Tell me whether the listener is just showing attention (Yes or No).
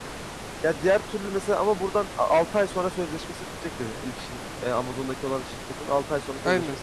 No